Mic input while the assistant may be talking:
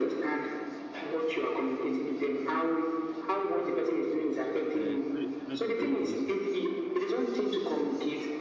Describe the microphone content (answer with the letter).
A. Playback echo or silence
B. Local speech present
B